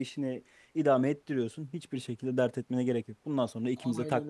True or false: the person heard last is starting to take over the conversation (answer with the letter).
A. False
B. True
B